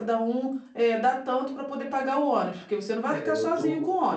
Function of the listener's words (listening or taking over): taking over